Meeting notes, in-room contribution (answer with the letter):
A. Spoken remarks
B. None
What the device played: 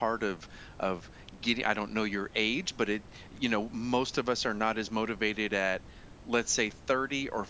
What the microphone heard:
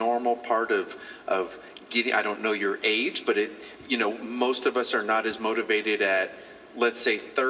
B